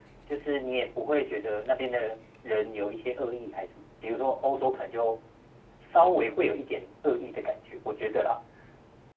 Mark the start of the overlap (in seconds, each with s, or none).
none